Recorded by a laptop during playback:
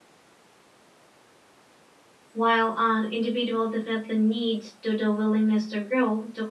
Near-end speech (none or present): present